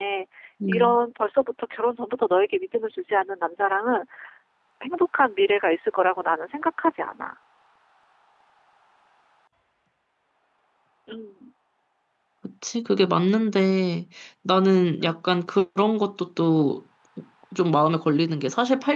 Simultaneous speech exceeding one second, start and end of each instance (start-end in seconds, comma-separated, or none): none